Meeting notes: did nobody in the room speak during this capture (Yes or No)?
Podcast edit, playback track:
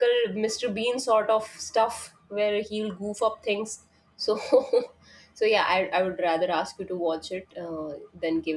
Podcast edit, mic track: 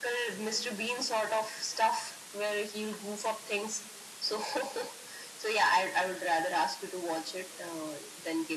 Yes